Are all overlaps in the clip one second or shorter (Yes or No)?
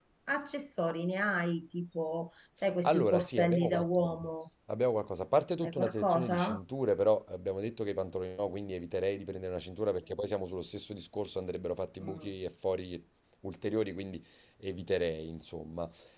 No